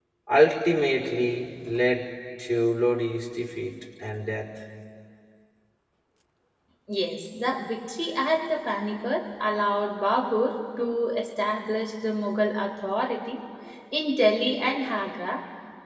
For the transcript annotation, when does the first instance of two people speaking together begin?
none

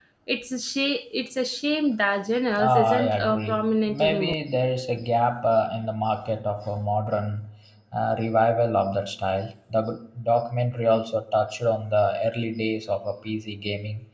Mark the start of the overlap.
2.6 s

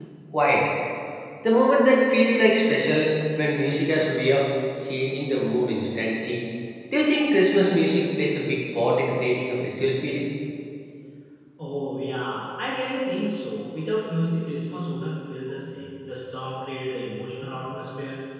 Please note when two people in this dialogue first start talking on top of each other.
none

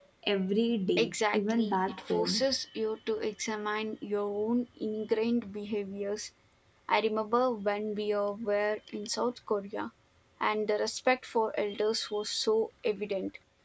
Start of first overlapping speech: 1.0 s

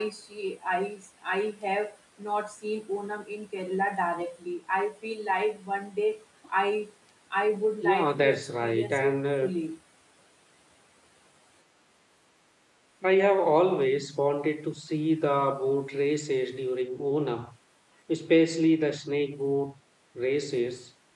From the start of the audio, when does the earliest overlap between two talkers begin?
7.8 s

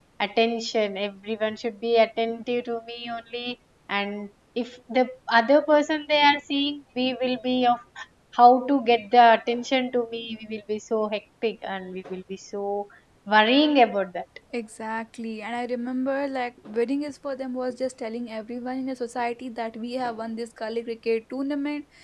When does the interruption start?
none

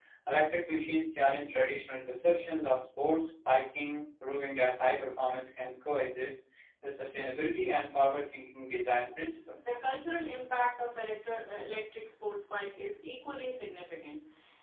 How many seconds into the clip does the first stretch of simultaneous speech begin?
none

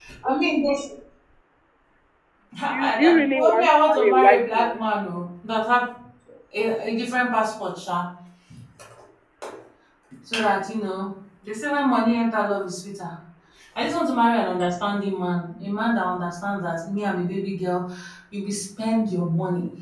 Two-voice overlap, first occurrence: 2.6 s

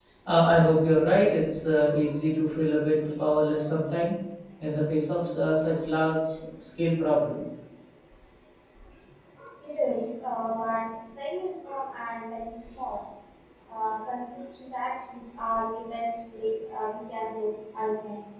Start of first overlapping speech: none

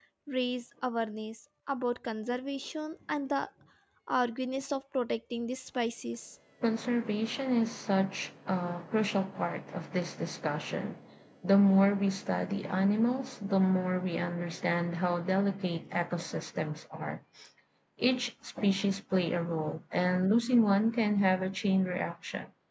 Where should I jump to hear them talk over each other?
none

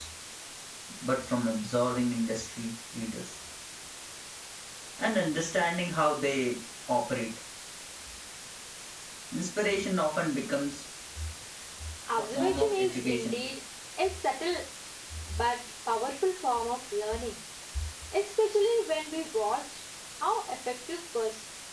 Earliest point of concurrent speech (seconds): 12.2 s

